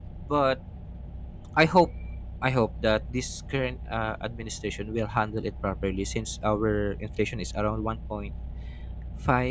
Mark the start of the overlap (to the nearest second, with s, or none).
none